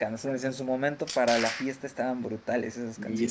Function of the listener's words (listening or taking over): taking over